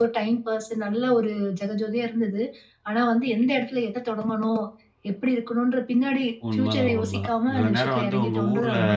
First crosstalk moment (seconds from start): 6 s

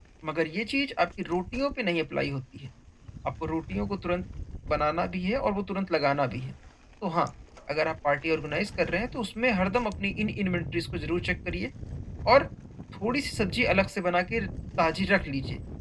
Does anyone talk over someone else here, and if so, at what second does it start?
none

